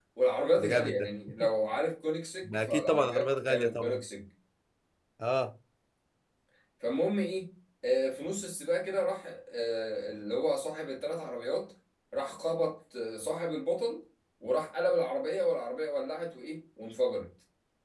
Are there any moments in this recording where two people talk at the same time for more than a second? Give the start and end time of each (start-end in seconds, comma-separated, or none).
2.4-4.0